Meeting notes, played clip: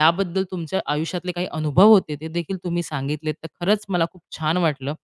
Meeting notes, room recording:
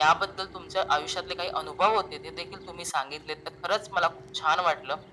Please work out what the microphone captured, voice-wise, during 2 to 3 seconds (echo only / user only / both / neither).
echo only